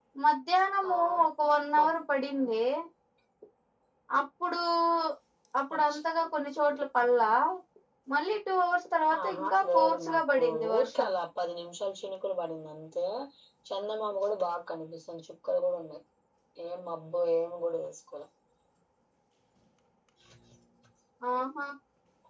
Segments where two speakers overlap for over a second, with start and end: 9.2-11.1

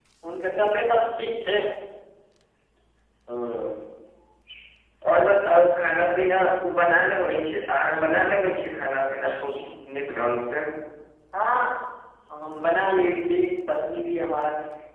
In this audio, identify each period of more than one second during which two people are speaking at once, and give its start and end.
none

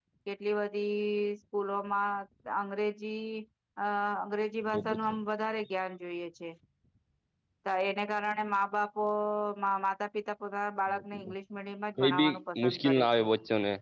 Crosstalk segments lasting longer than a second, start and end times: 12.0-13.2

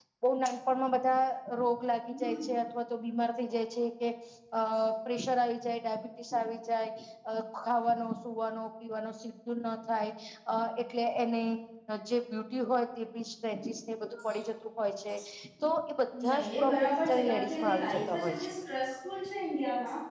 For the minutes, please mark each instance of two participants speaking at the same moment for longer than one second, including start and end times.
16.3-18.5

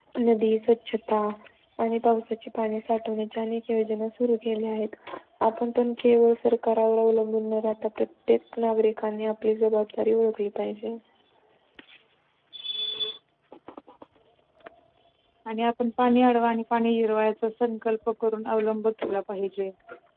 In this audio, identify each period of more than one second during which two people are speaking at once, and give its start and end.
none

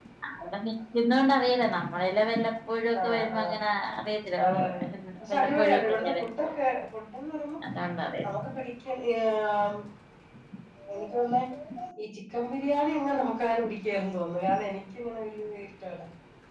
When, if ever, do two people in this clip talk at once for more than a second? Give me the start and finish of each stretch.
5.3-6.6

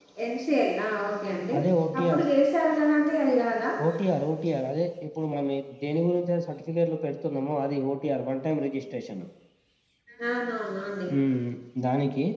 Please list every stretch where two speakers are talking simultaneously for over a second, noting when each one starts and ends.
none

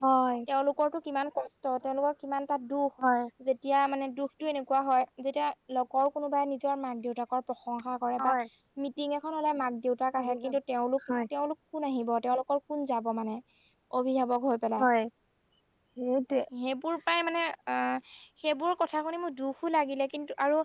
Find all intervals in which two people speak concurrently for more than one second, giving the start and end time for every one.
none

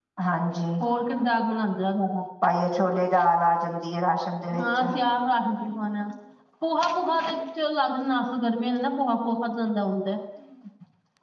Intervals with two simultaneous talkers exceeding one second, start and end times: none

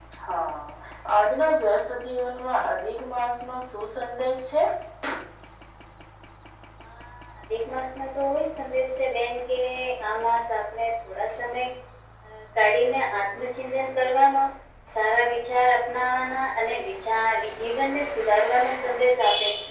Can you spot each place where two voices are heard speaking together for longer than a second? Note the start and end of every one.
none

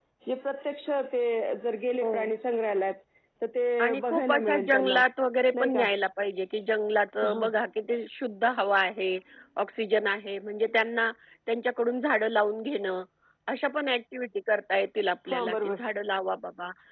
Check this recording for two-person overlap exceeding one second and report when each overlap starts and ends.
3.8-5.0

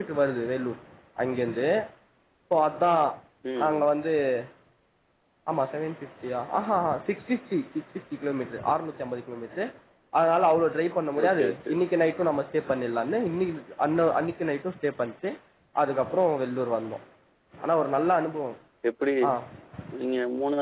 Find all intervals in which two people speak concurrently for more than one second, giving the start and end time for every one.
none

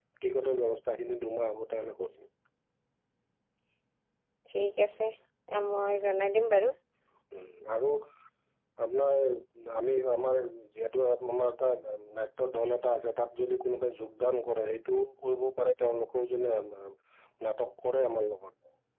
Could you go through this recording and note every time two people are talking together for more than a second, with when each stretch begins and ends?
none

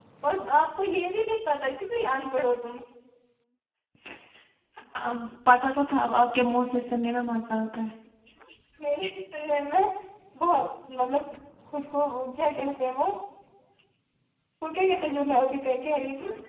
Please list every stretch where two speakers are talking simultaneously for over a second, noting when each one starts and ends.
none

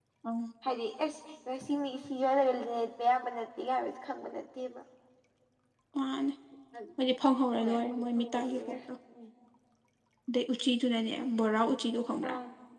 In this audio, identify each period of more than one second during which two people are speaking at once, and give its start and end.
7.6-8.8

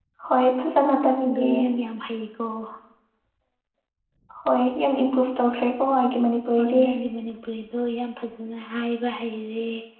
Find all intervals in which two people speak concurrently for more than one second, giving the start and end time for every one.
none

